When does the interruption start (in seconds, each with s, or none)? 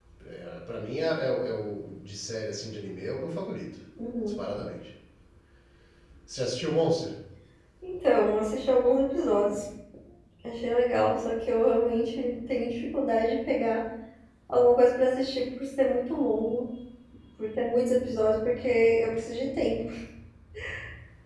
none